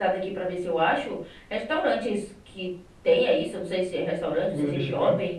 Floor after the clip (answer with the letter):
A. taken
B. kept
B